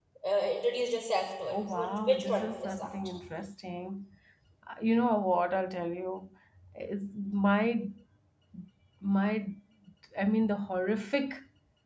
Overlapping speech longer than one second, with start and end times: 1.5-2.9

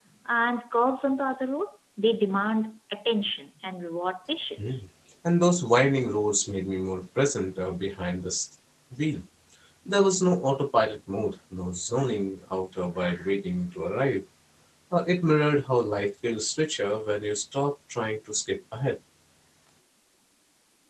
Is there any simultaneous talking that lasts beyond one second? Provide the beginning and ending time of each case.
none

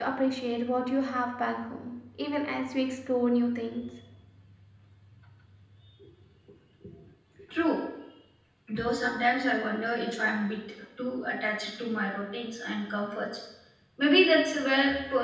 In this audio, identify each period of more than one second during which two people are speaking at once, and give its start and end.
none

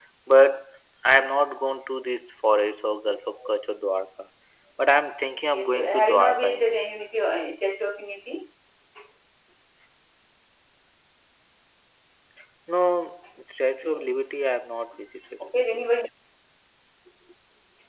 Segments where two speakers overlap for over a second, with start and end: 5.5-6.8

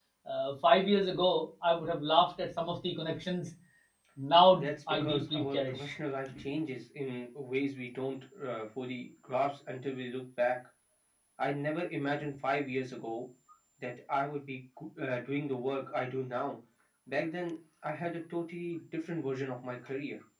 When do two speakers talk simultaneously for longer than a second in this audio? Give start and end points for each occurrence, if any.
4.6-6.0

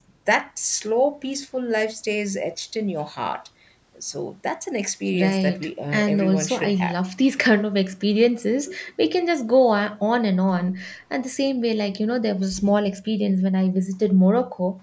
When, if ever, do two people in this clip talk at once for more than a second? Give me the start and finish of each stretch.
5.2-6.9

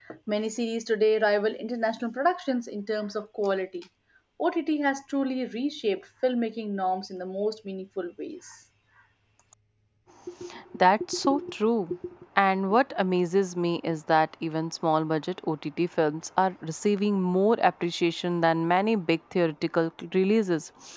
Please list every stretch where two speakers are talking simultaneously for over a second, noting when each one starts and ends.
none

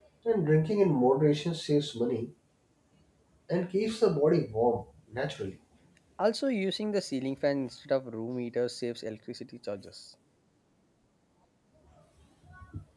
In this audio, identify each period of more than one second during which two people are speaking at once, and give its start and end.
none

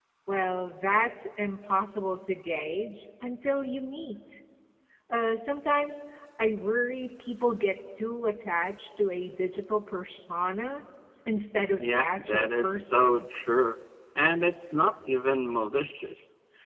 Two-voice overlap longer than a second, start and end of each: 11.8-13.2

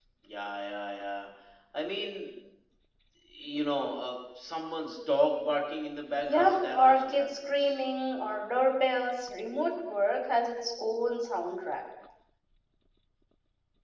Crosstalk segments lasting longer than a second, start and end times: 6.3-7.8

